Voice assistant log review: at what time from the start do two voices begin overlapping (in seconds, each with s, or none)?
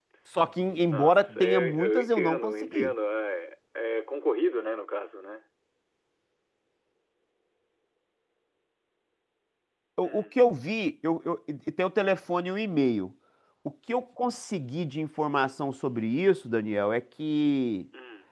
0.9 s